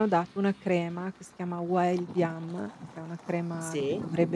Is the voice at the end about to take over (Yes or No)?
No